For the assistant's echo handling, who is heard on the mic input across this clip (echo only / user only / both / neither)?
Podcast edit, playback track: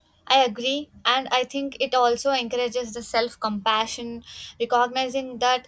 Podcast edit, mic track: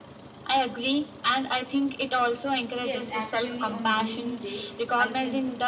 both